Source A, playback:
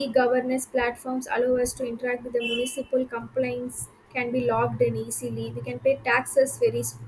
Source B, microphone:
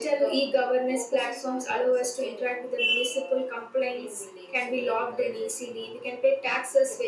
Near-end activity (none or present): present